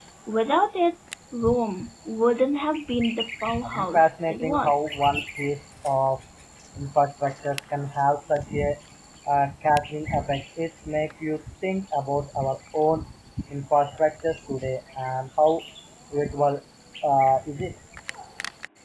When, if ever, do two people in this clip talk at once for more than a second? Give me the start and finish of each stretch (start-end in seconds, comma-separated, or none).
3.6-5.0